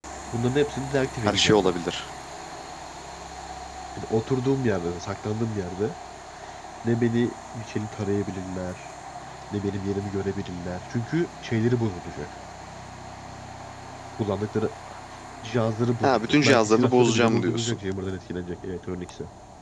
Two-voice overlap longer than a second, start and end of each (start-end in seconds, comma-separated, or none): 16.0-17.8